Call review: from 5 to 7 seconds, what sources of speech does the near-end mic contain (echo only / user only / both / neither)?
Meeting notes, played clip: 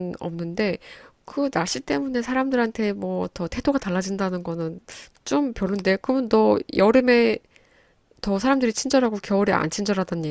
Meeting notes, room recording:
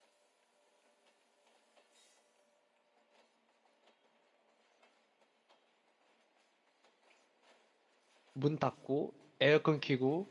neither